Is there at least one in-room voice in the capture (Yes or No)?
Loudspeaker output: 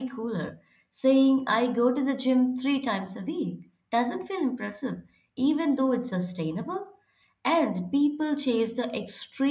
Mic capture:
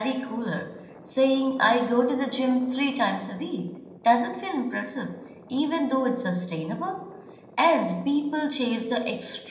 No